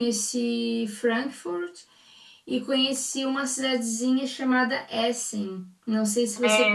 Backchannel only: No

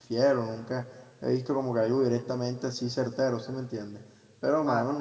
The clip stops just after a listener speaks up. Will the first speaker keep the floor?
Yes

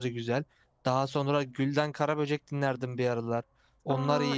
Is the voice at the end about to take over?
Yes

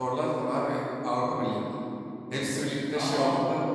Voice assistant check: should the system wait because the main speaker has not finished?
No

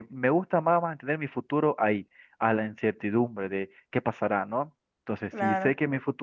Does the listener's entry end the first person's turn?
No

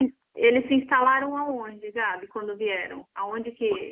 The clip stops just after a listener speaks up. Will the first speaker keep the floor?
Yes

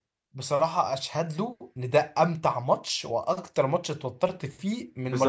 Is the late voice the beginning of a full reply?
Yes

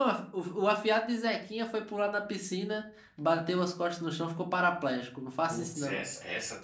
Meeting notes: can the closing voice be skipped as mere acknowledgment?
No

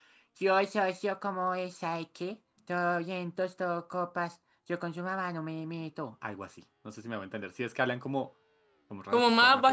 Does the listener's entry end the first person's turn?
Yes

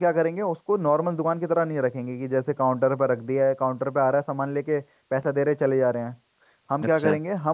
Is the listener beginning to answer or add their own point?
No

